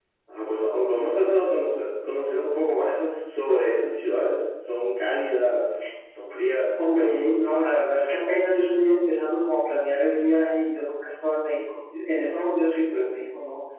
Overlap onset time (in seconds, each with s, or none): none